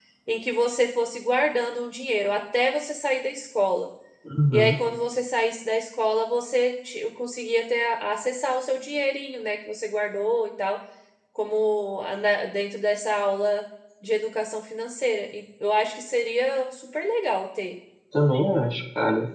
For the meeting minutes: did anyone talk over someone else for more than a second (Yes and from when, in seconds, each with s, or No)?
No